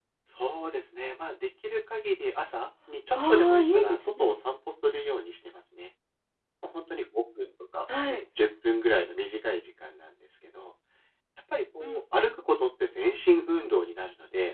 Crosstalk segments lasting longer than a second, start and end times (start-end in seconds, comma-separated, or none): 3.1-4.3